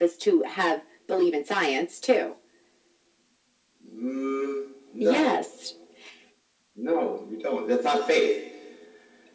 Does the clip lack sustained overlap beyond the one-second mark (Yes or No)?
Yes